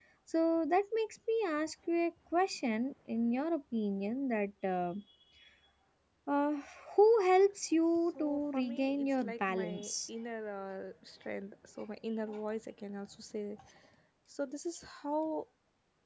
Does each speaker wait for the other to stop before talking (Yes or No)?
No